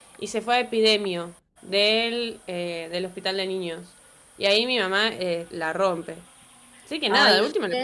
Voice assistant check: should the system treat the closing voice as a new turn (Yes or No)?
Yes